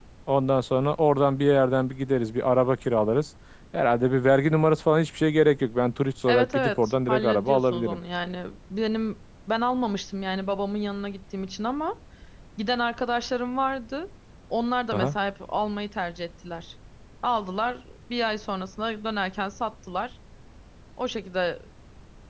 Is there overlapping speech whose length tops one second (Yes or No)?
Yes